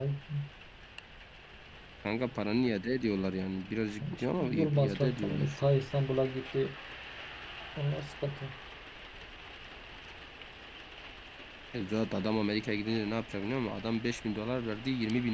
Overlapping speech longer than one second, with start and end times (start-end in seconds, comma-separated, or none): 4.2-5.6